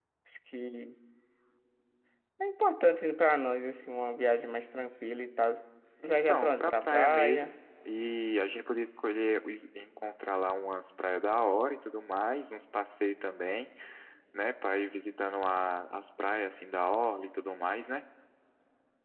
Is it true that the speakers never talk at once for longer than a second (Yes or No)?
No